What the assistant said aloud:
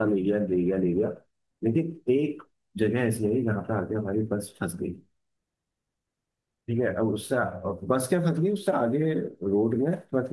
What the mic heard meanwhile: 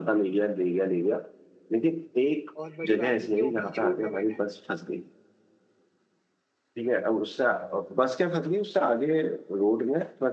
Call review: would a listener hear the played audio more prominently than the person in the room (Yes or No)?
Yes